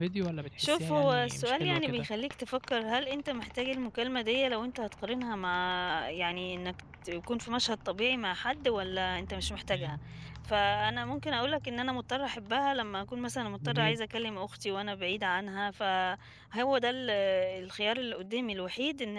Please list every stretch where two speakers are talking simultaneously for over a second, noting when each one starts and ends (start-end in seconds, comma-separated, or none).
0.6-2.1